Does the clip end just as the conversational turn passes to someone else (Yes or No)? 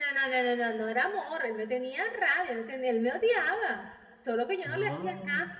No